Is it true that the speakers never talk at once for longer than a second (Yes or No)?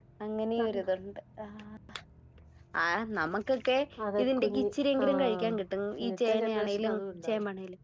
No